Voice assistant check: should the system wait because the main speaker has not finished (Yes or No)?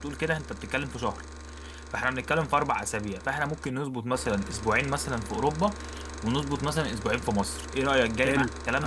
No